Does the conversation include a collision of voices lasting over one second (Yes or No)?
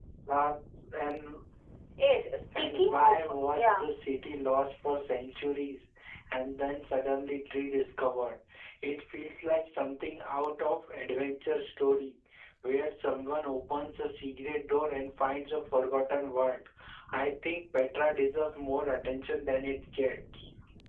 Yes